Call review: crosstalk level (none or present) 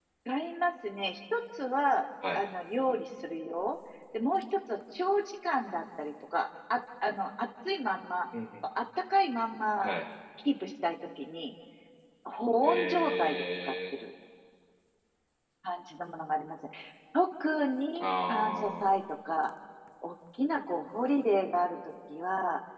present